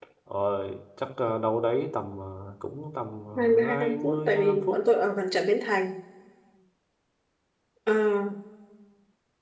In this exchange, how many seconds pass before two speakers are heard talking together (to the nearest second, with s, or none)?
3 s